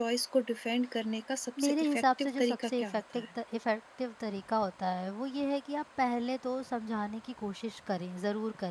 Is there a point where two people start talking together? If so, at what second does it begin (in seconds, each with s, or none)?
1.6 s